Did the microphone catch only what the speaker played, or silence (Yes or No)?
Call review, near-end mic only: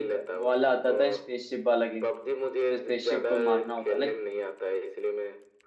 No